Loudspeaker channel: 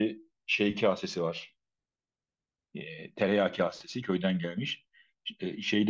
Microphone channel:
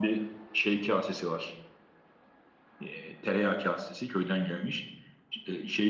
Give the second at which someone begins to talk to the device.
none

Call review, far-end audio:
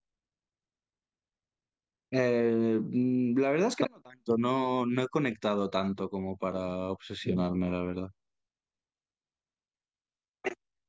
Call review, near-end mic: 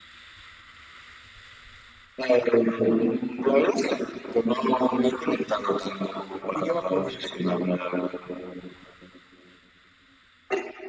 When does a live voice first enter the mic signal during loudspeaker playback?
6.5 s

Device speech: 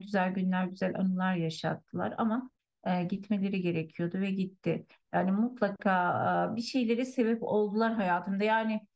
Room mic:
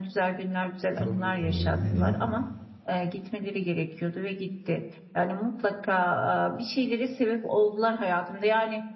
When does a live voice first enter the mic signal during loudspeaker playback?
0.9 s

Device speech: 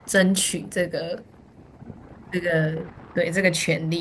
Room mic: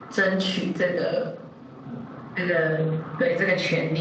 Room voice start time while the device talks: none

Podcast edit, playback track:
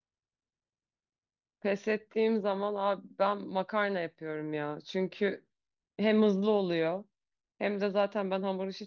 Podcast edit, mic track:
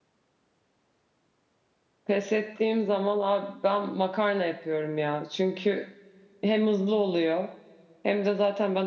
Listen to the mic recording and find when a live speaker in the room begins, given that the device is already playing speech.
none

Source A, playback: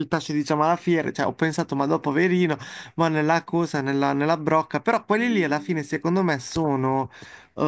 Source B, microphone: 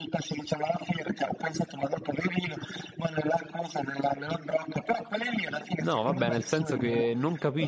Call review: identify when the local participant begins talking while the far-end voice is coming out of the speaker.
5.8 s

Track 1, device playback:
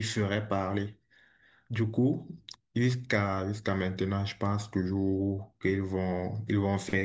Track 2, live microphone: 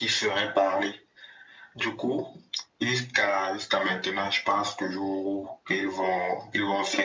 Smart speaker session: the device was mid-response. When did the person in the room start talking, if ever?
none

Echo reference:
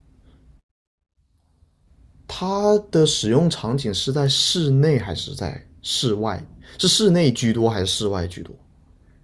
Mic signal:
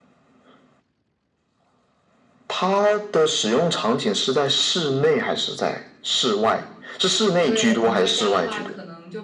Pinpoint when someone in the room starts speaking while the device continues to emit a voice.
7.4 s

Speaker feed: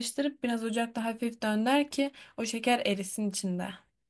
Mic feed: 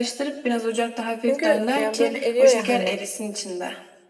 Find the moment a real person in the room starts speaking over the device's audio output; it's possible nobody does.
1.3 s

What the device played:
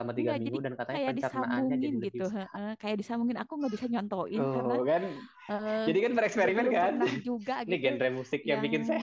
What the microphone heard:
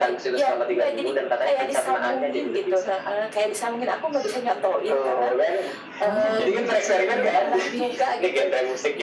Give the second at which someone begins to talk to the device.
6.0 s

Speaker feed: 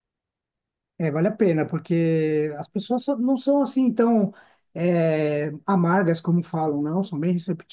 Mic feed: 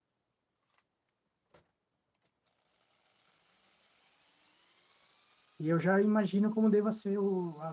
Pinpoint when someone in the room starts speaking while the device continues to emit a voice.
5.6 s

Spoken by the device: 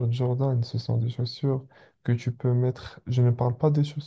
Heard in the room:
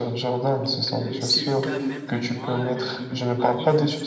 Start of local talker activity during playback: 0.6 s

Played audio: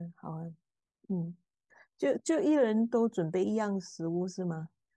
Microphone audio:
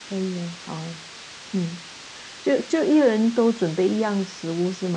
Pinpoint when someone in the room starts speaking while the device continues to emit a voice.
none

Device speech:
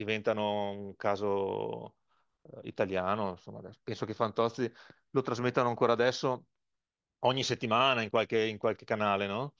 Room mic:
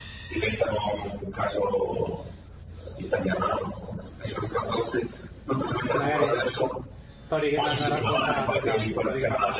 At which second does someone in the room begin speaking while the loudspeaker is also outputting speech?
5.8 s

